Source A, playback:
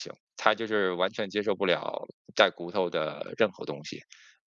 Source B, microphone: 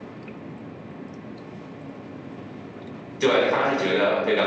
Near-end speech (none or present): present